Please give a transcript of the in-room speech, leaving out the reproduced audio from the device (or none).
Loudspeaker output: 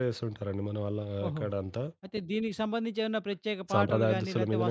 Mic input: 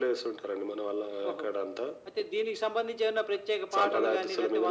none